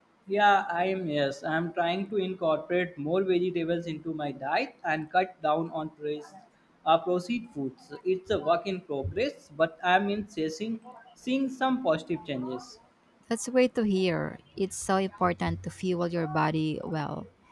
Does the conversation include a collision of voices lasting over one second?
No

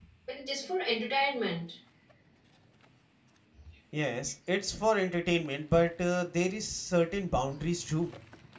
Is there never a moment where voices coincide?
Yes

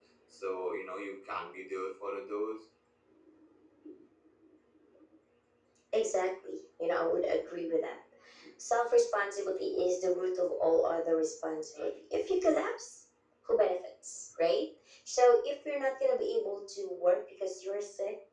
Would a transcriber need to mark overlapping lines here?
No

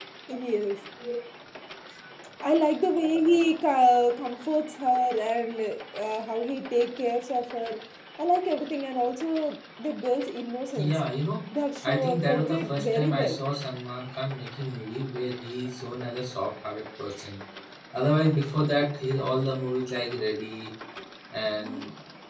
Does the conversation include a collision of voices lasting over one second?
Yes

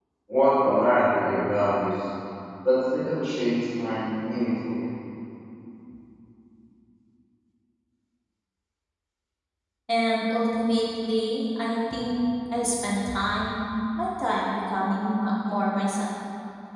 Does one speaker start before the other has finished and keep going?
No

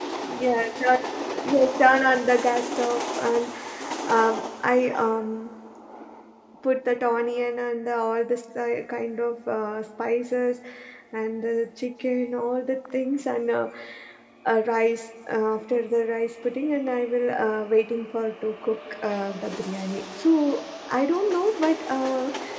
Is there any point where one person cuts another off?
No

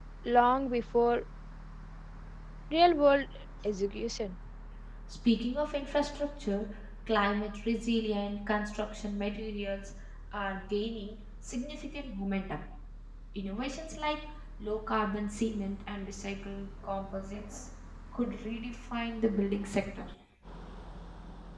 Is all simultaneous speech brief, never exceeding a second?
Yes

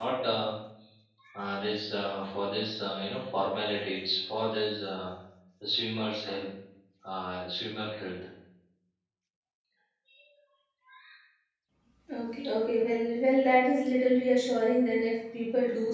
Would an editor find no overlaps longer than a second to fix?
Yes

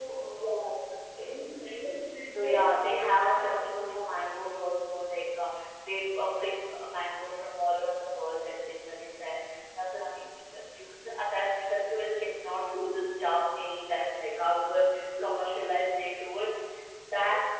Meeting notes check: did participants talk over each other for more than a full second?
Yes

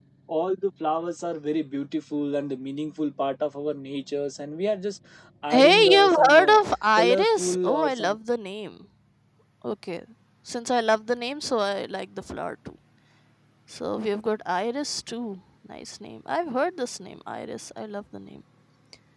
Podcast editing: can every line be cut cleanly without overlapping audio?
No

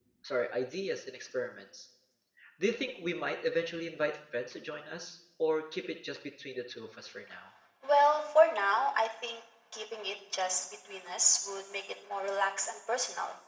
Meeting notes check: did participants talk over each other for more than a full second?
No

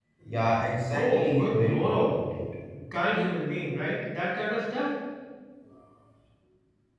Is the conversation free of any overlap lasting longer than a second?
No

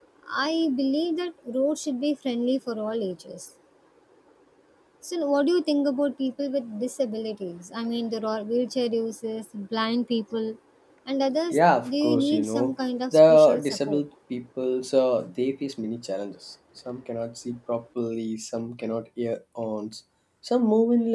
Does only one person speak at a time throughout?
No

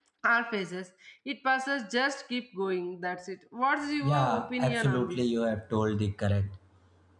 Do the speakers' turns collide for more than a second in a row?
Yes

